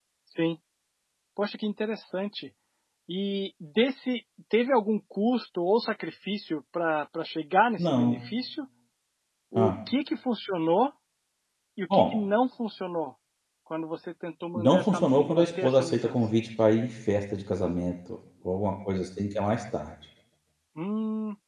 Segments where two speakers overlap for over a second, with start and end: 14.6-16.3

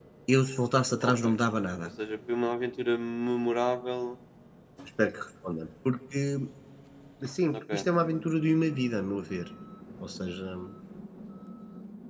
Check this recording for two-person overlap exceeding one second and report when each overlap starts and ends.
none

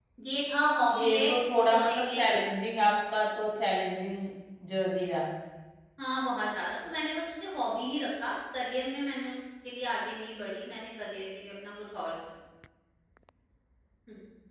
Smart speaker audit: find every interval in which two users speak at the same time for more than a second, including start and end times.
0.9-2.4

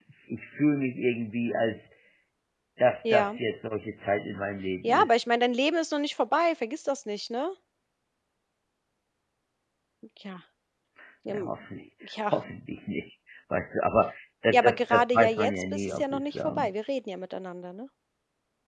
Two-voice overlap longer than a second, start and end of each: 14.5-16.7

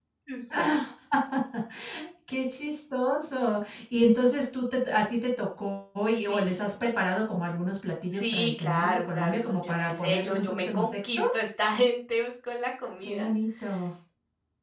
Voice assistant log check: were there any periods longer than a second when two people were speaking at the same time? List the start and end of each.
8.1-11.2

